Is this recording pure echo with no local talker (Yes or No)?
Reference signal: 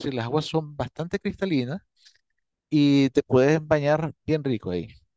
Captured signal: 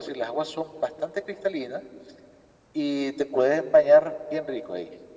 Yes